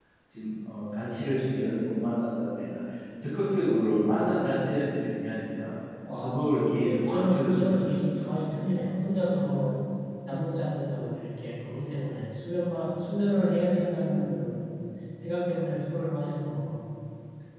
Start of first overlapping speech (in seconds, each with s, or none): 6.1 s